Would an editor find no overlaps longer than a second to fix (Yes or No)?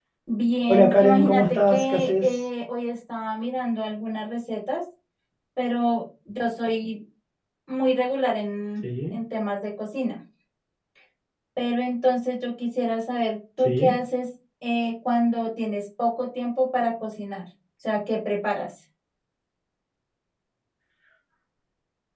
No